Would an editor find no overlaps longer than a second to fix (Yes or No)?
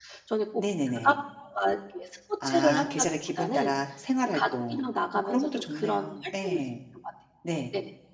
No